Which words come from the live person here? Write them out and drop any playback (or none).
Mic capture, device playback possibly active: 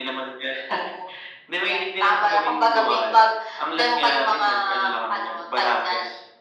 none